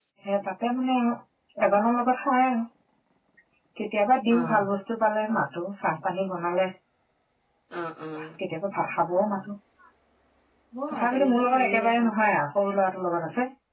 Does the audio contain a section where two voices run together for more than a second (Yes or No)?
Yes